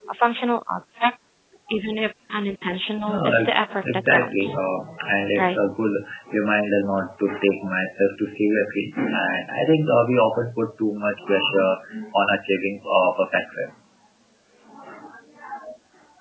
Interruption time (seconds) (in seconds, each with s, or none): 3.1 s